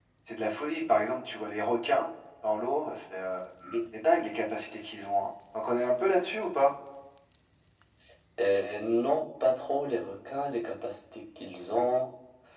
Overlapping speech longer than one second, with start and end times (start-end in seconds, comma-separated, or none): none